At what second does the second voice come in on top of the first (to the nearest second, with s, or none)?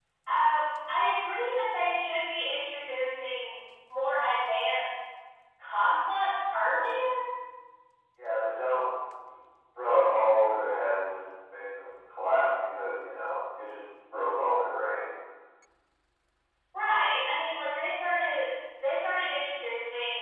none